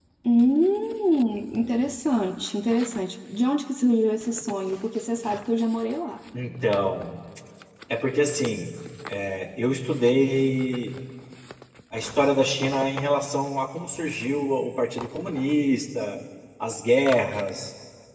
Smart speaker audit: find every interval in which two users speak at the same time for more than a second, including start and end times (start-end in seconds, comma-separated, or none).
none